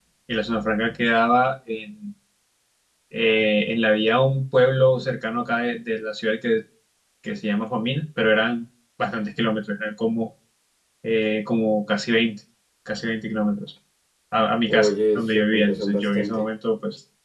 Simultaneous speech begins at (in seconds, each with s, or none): 14.7 s